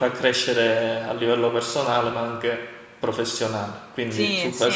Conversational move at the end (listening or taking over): taking over